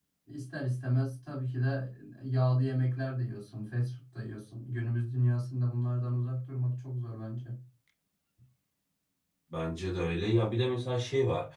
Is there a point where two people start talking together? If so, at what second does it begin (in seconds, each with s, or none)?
none